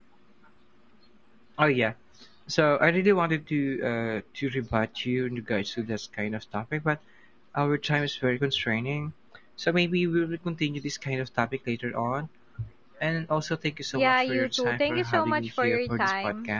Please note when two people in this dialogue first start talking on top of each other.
13.9 s

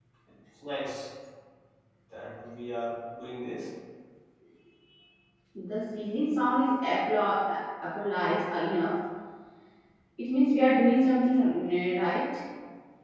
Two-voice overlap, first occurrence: none

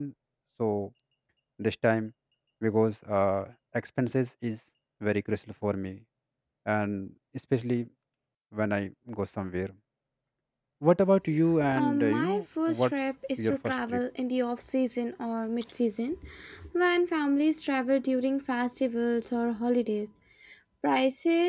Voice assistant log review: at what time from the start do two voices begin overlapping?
11.6 s

